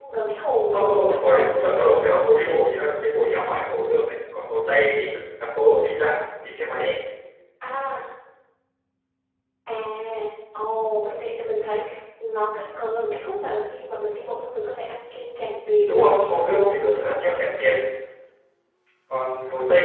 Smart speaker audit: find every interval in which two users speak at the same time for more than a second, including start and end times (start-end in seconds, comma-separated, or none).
0.7-2.8, 15.9-17.4